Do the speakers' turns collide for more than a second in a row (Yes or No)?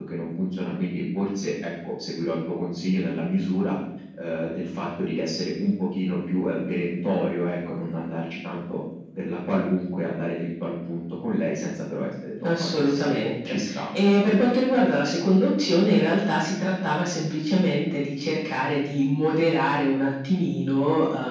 Yes